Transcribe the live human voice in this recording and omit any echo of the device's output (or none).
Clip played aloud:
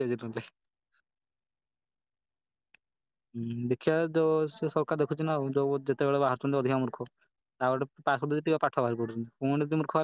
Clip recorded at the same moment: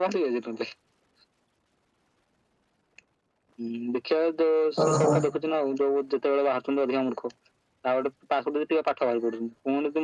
ଓହୋ।